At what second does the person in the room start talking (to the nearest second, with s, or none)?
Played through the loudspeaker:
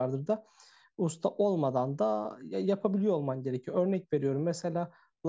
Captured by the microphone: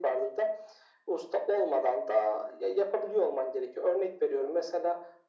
none